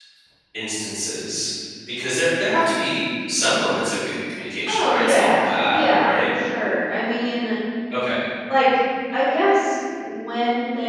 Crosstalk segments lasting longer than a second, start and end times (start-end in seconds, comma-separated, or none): 4.7-6.3